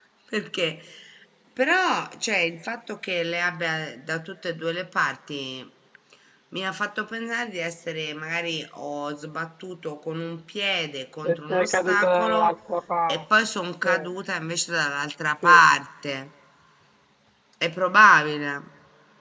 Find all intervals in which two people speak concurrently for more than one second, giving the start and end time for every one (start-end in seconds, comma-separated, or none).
11.2-12.5